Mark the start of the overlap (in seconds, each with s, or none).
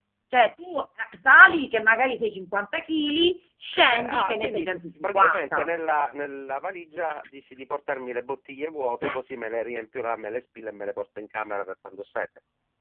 3.7 s